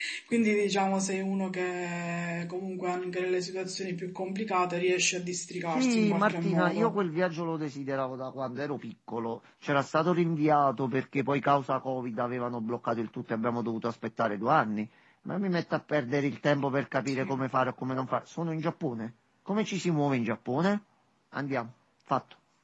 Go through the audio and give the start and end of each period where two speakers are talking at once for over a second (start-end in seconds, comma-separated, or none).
5.7-7.0